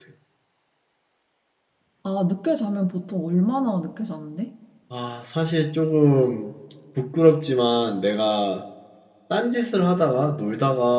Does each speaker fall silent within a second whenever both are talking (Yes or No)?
Yes